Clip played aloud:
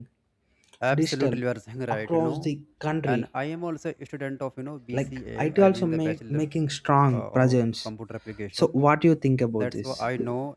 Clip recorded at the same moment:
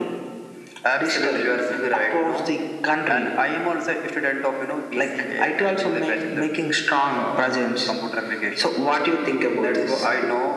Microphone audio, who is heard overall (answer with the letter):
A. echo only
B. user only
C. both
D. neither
A